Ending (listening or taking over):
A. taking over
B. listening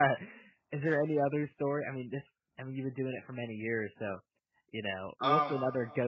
B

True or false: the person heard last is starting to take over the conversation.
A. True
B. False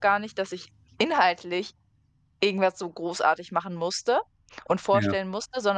B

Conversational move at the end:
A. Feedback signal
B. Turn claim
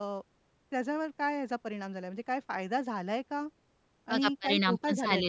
B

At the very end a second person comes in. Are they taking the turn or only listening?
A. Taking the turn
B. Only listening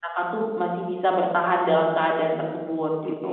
A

